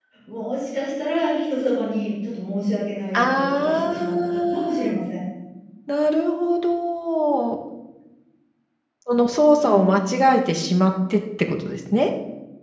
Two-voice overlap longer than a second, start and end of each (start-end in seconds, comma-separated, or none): 3.1-4.9